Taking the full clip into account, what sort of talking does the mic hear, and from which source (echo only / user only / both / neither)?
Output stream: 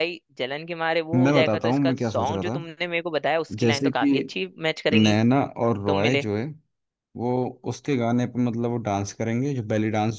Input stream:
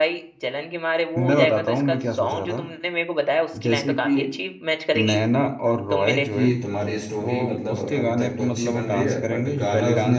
both